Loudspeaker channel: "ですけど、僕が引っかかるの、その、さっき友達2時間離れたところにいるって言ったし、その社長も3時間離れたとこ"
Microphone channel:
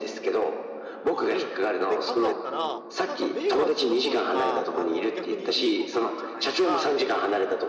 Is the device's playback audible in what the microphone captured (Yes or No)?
Yes